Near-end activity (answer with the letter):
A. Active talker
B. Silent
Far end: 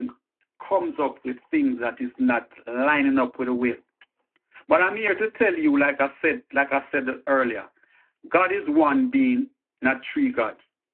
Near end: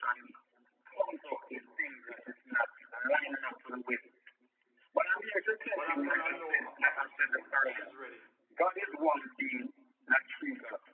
A